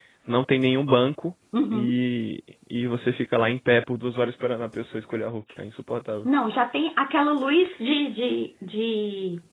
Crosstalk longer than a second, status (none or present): none